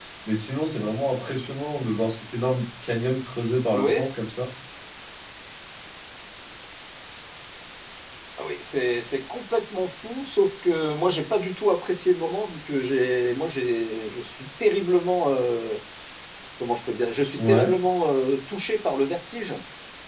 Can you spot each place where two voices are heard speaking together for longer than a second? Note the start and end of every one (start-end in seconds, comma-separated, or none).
none